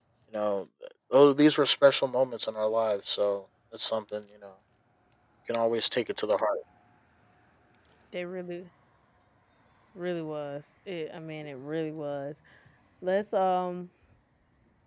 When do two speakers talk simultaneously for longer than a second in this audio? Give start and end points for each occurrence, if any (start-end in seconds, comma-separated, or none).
none